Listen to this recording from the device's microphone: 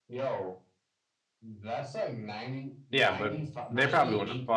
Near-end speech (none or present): present